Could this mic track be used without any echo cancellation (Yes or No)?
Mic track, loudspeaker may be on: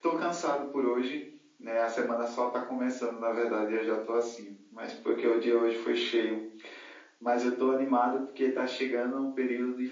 No